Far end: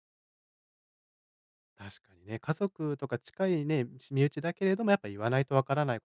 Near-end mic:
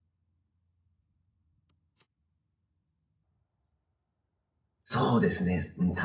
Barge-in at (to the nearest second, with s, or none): 5 s